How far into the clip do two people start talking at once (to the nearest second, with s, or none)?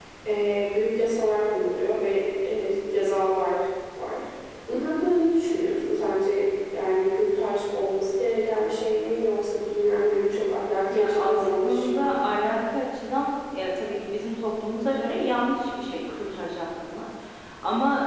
11 s